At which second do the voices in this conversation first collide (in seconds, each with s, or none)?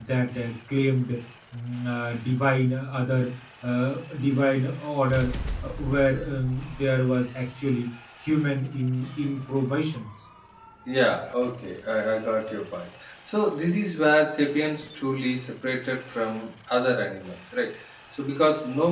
none